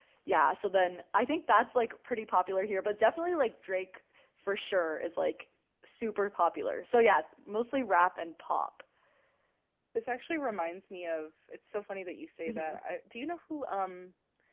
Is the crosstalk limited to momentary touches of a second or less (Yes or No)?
Yes